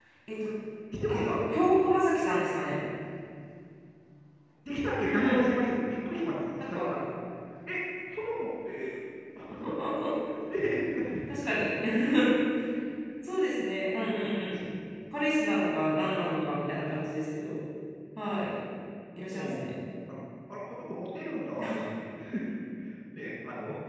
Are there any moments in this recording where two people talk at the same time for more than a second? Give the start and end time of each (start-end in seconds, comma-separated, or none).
none